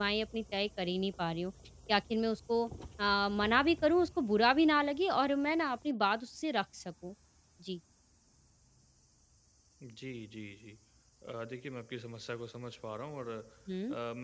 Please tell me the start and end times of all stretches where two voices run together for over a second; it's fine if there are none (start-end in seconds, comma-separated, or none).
none